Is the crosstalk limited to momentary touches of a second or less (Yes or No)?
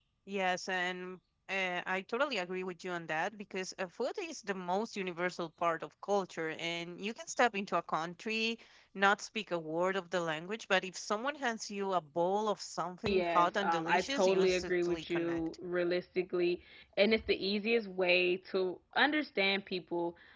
No